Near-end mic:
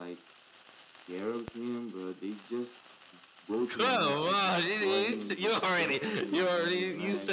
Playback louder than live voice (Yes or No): No